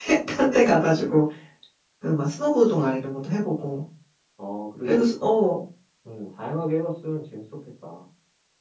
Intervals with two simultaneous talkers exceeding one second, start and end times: none

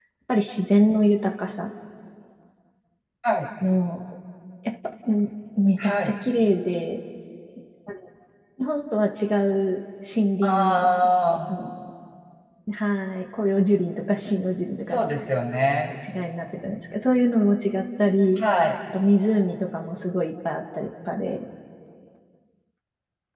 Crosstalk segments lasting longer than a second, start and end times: none

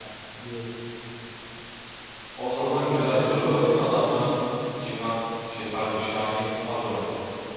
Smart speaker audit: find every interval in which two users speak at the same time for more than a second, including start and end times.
2.6-4.3

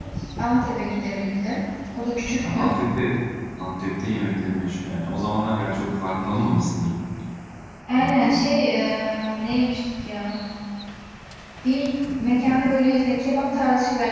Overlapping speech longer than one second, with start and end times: none

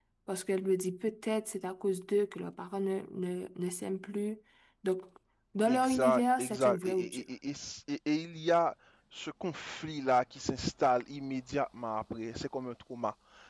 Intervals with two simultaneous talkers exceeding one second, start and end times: 5.7-7.2

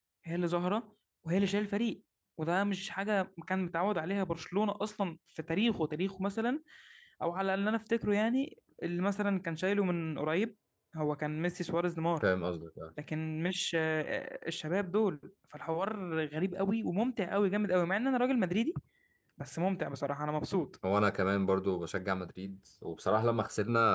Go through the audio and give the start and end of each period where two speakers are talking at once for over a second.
none

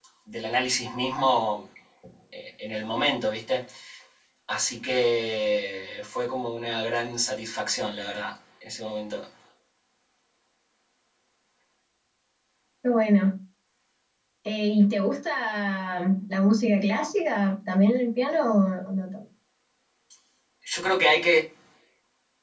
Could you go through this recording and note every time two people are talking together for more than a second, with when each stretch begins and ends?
none

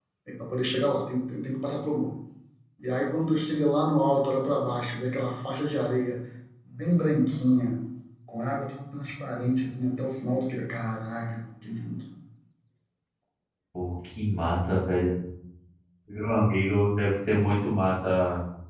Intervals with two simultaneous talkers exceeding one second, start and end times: none

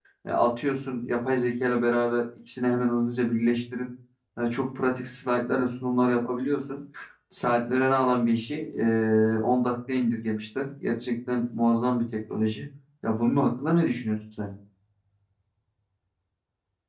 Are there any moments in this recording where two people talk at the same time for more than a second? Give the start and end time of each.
none

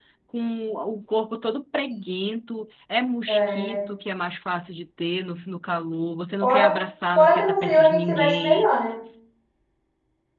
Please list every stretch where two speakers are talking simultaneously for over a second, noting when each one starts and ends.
7.2-8.7

